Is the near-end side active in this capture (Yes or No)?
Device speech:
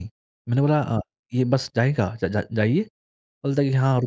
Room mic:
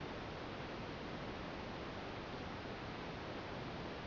No